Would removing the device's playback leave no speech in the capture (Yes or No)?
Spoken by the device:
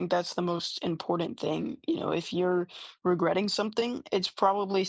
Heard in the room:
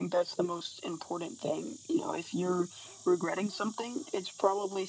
Yes